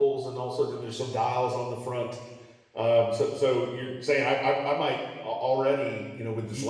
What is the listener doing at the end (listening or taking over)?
listening